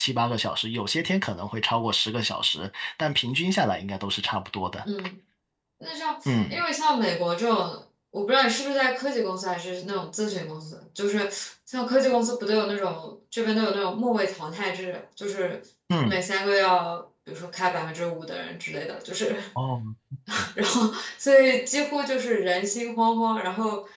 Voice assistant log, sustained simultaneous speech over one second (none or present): none